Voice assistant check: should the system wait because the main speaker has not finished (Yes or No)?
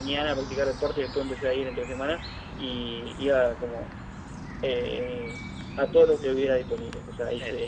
Yes